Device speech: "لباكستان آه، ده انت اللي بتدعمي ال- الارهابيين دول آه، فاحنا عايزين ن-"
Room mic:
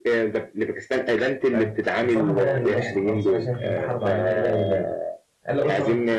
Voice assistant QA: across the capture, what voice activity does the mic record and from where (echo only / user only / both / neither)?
both